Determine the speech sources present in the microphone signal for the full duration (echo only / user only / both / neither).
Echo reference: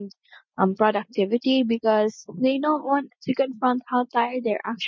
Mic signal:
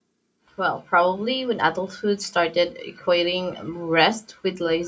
user only